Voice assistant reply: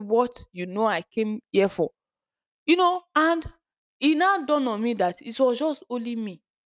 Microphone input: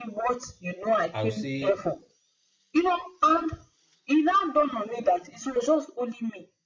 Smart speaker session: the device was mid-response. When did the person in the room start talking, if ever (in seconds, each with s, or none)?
1.1 s